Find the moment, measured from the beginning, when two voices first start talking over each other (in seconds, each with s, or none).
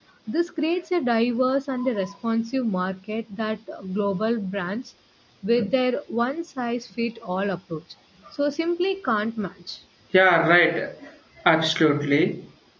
none